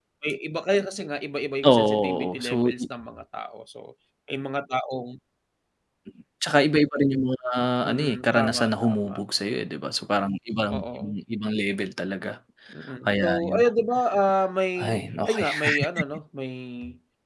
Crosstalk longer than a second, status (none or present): present